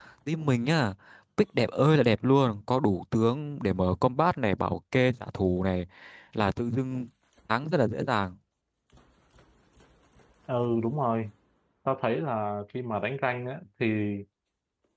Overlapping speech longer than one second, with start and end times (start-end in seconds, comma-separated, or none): none